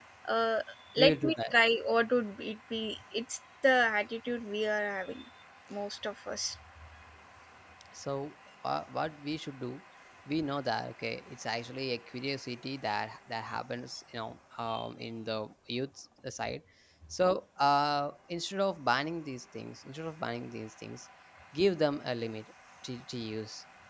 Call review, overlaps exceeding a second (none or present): none